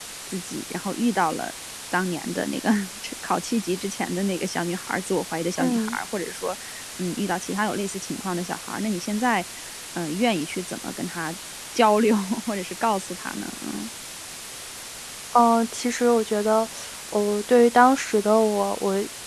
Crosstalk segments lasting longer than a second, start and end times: none

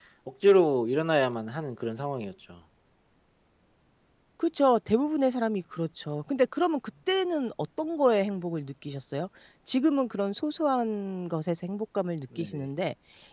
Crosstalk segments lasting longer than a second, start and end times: none

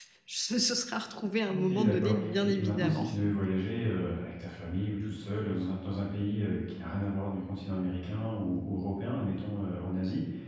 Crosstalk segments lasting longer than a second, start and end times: 1.5-3.1

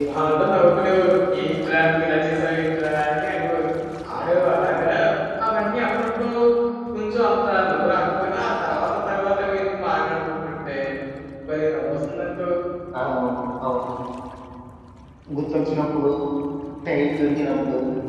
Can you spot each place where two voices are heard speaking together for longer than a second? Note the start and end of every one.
none

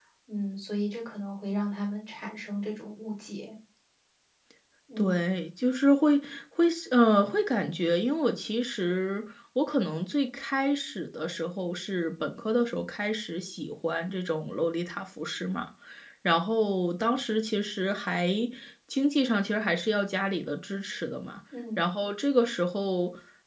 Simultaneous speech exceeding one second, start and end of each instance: none

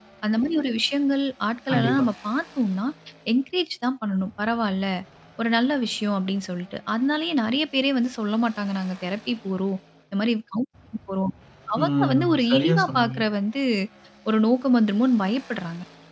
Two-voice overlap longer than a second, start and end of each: 11.8-13.2

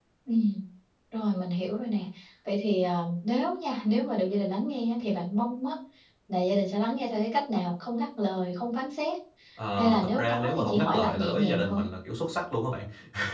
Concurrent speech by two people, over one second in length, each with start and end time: 9.7-11.8

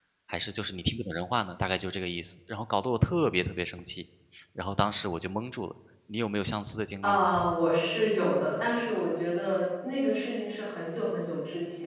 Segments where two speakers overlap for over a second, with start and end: none

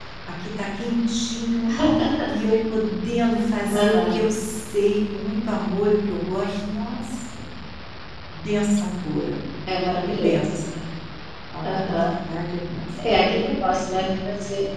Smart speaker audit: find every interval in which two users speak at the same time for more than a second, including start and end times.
none

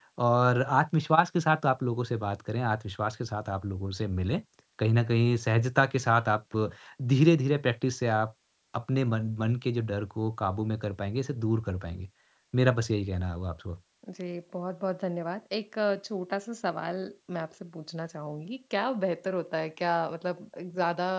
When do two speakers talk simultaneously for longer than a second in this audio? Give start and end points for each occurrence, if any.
none

